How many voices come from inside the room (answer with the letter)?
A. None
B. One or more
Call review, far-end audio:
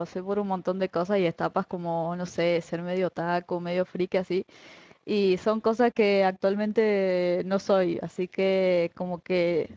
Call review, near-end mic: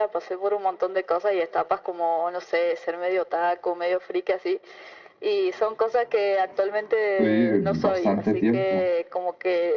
B